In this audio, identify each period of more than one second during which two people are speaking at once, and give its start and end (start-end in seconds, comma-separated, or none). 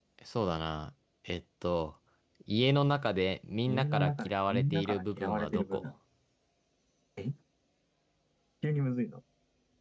3.6-5.9